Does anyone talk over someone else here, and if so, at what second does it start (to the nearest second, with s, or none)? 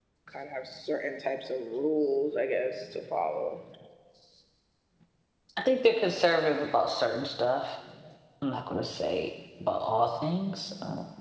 none